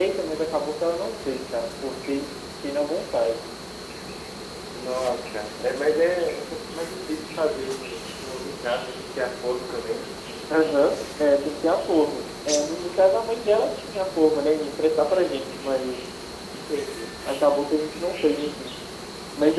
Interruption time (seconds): none

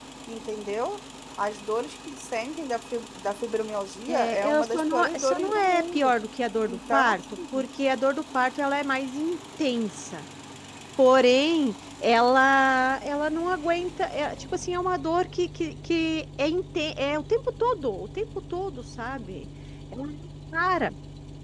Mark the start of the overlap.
4.1 s

